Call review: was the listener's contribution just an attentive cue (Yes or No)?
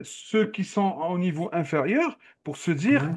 Yes